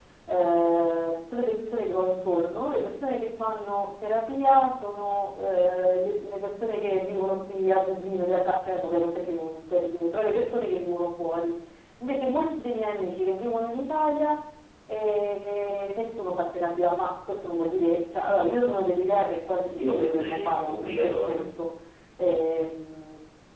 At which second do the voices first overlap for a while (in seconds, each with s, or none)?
19.8 s